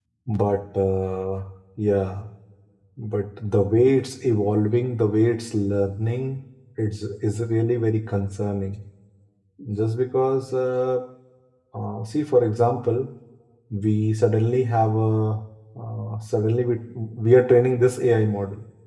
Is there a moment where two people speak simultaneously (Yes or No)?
No